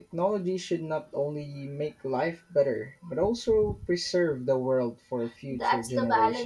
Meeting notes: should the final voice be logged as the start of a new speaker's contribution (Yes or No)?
Yes